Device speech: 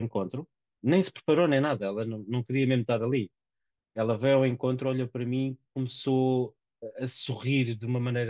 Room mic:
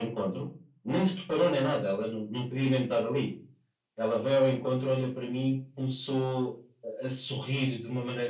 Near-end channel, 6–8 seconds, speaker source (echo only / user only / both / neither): echo only